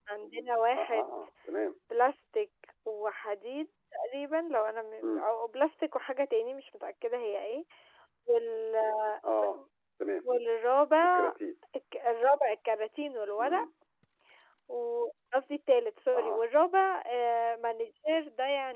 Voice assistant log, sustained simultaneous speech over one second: none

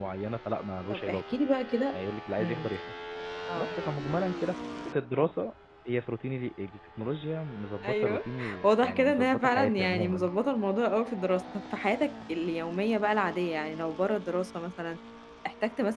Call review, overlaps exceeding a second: present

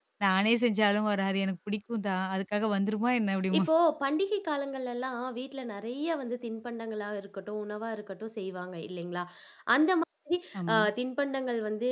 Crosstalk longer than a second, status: none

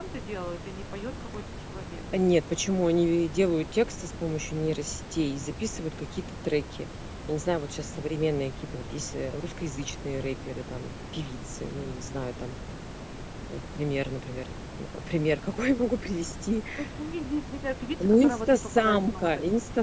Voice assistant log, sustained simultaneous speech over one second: present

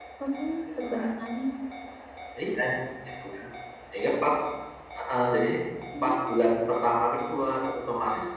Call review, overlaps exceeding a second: none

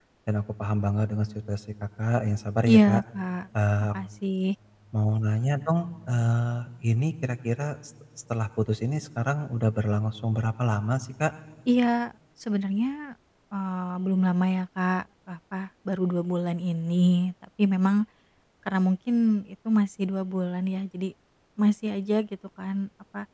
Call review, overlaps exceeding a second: none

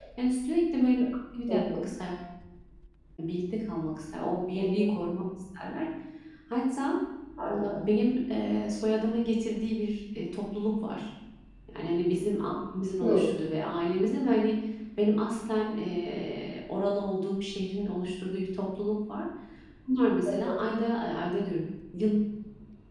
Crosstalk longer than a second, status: none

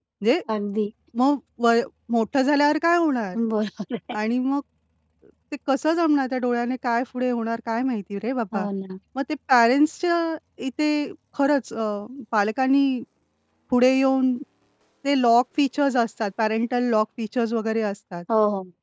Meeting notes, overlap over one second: none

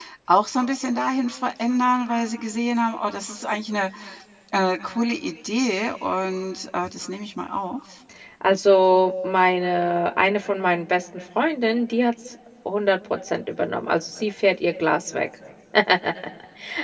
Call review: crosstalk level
none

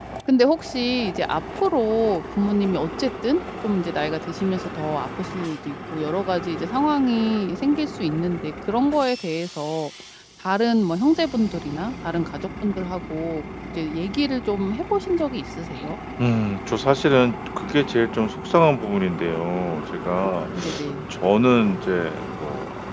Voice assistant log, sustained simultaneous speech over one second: none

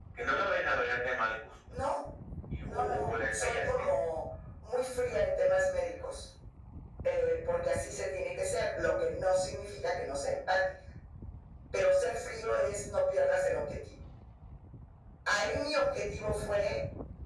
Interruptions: present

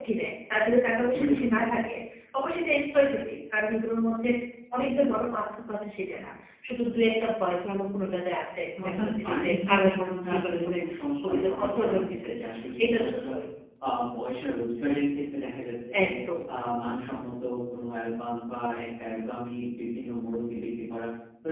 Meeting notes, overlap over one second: present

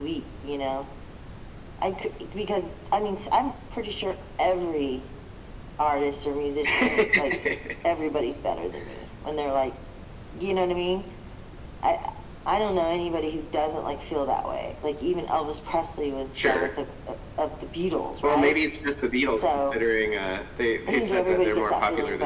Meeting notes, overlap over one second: present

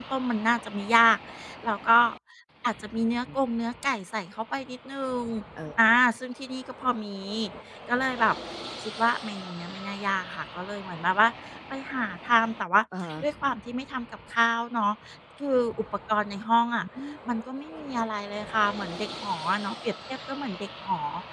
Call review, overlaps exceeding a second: none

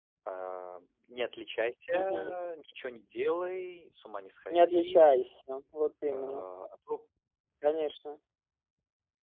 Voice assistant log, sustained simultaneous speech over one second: none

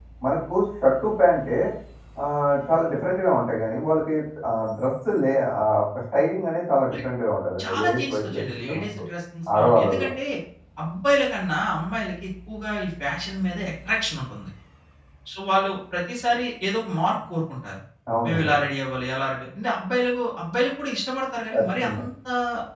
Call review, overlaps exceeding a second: present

